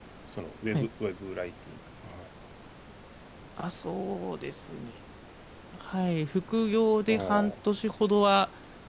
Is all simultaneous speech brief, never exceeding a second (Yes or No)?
Yes